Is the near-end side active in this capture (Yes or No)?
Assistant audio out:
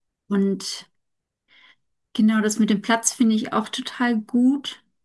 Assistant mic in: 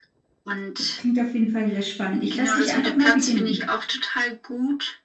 Yes